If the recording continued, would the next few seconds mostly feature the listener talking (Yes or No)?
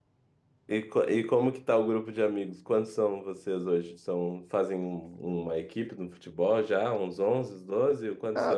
Yes